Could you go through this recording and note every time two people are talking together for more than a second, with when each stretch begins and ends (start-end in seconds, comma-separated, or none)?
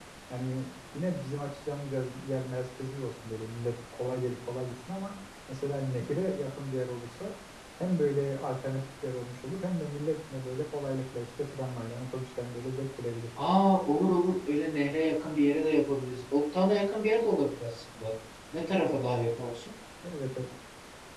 none